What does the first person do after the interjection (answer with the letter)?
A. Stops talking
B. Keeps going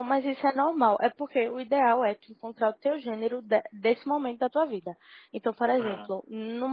B